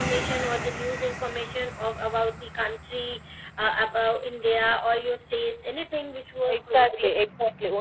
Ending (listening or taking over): taking over